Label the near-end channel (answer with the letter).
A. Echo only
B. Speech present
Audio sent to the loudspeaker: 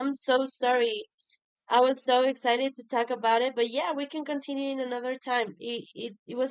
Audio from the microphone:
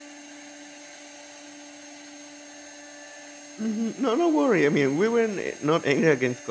B